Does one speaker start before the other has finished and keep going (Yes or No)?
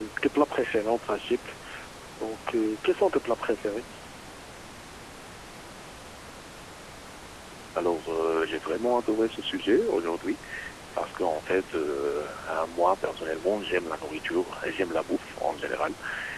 No